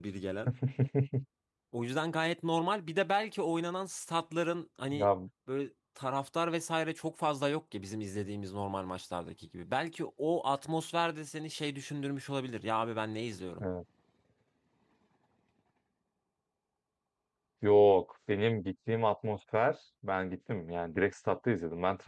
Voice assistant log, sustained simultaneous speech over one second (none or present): none